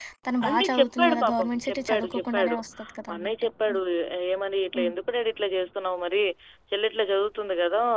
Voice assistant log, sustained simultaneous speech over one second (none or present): present